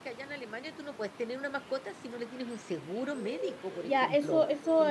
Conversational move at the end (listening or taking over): taking over